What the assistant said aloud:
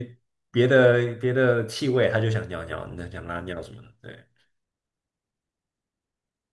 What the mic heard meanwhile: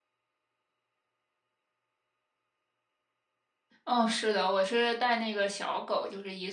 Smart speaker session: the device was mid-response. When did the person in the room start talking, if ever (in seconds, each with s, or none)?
3.8 s